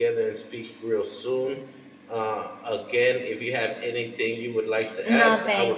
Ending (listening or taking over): taking over